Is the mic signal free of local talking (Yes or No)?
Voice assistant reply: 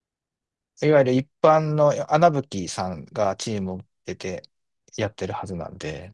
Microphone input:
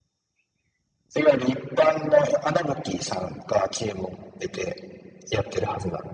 Yes